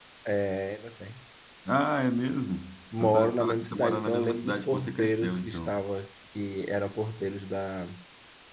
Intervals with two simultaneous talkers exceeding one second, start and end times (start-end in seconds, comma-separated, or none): 3.0-5.7